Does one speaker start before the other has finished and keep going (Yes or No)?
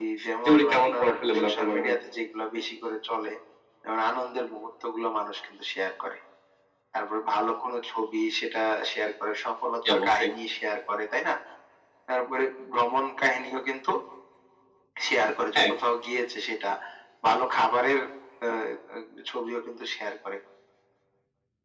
Yes